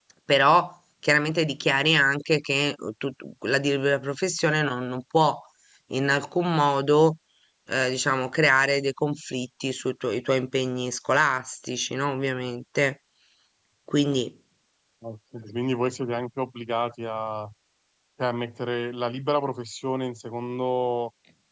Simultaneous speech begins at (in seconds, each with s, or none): none